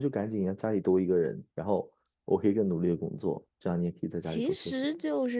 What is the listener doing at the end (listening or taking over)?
taking over